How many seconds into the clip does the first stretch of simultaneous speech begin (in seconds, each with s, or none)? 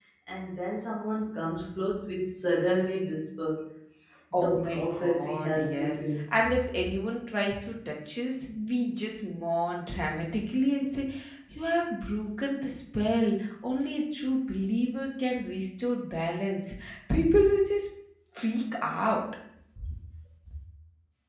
4.4 s